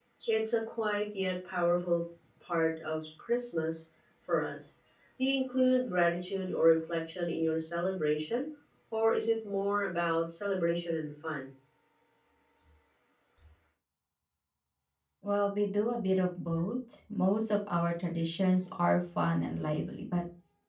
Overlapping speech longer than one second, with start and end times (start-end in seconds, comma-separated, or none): none